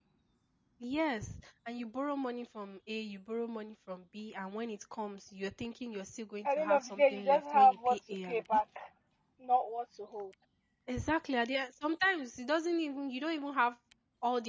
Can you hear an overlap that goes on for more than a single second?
Yes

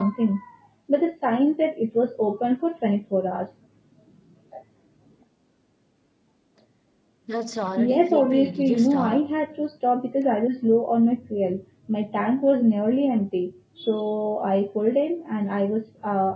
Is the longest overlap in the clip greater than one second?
Yes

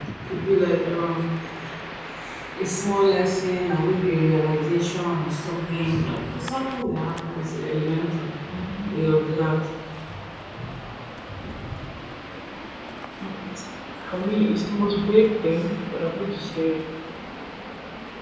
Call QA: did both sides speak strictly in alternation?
Yes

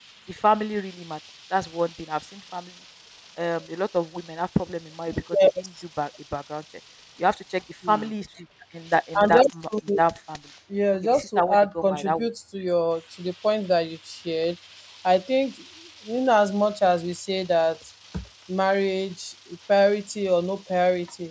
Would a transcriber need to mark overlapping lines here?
Yes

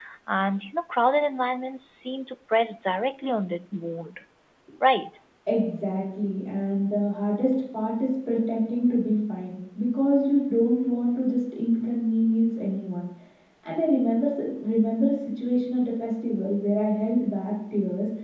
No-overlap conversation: Yes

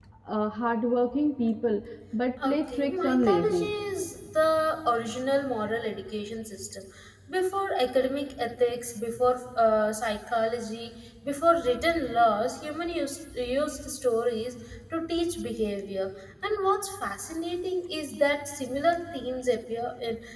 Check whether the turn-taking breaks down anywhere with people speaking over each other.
Yes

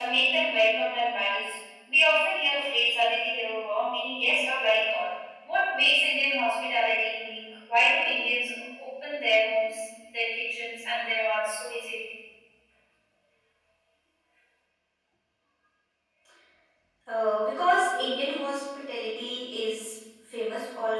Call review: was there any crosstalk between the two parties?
No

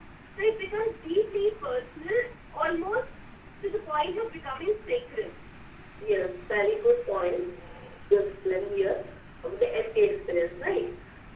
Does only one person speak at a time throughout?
Yes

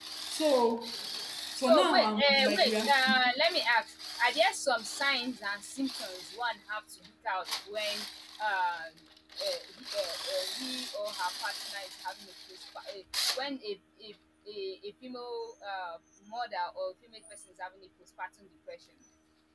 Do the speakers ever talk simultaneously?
Yes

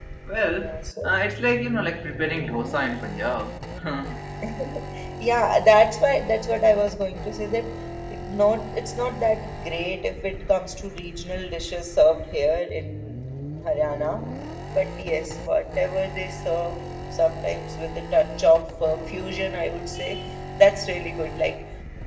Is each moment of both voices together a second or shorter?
Yes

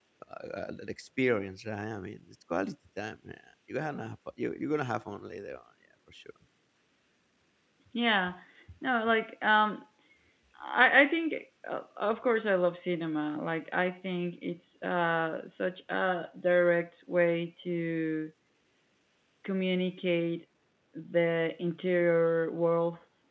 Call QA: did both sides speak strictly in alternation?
Yes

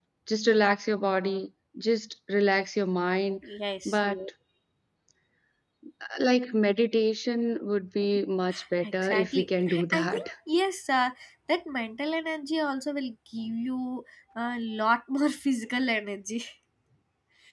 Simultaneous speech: Yes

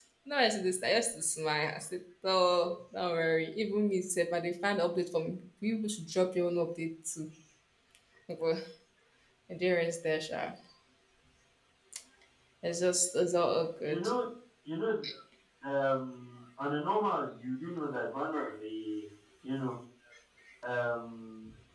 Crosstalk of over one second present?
No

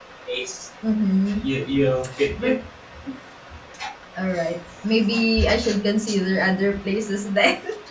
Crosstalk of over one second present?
No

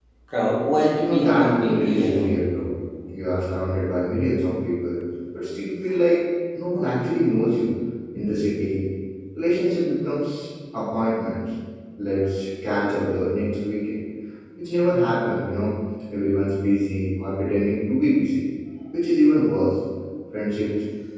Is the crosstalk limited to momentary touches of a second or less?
No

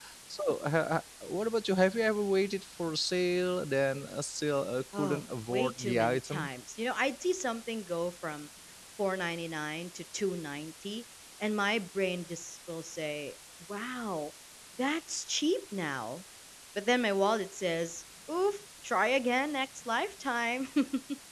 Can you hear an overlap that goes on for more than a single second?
Yes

